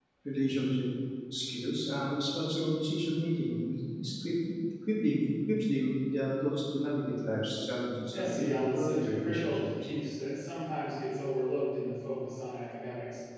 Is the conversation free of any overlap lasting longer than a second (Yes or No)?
No